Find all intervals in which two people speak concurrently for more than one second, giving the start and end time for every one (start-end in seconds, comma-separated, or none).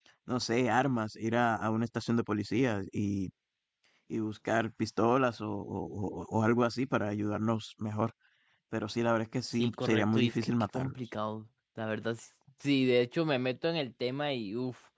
9.5-10.9